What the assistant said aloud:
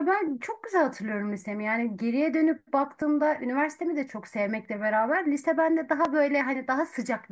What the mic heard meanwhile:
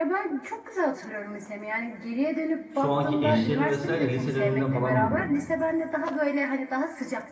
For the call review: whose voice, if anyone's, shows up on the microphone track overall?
both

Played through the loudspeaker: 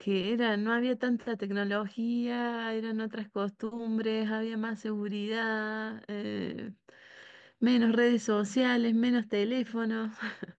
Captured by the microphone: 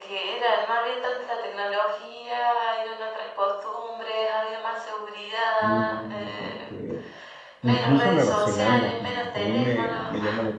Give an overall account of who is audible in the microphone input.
both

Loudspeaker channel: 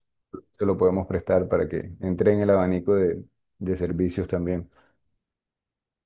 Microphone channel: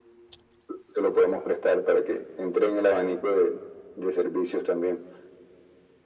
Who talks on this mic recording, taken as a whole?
echo only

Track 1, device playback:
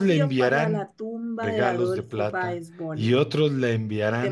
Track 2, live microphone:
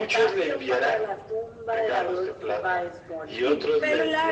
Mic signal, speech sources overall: both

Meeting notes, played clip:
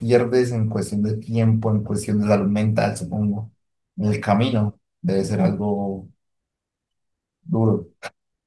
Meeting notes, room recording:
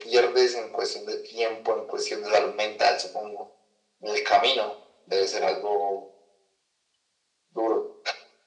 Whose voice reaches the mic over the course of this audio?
echo only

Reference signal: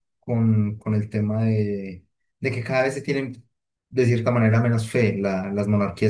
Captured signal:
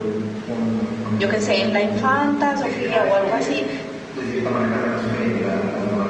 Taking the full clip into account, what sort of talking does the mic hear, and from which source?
both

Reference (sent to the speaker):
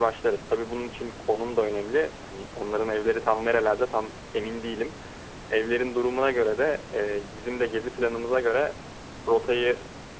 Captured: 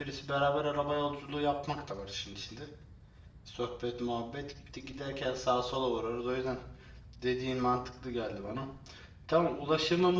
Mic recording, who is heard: user only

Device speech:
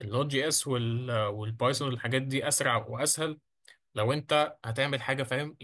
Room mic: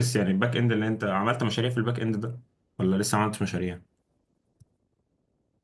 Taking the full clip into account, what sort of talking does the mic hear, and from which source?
user only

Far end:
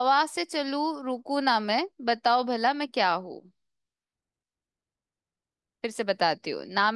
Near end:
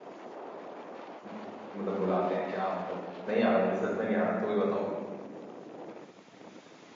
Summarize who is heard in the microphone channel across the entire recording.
user only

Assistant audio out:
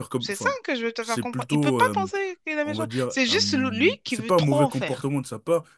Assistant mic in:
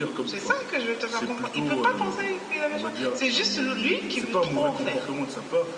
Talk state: echo only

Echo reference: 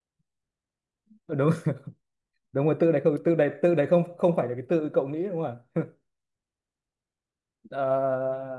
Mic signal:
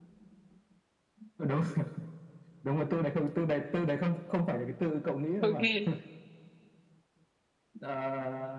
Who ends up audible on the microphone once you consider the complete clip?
both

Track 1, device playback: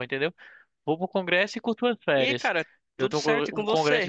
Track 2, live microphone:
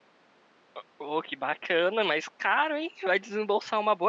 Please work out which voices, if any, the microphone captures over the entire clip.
user only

